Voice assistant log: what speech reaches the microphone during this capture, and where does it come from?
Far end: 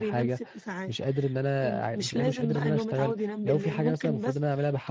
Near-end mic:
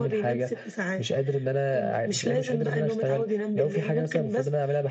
echo only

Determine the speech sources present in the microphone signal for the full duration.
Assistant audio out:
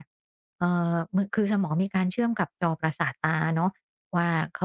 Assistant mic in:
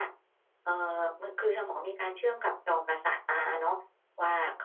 echo only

